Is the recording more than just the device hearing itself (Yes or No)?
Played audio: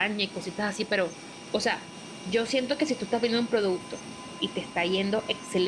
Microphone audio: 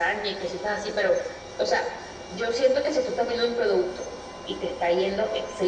No